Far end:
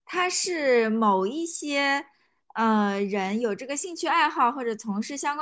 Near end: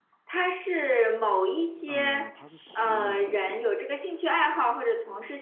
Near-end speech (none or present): present